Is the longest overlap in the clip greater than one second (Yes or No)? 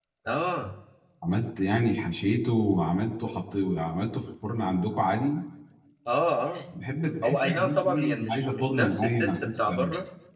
Yes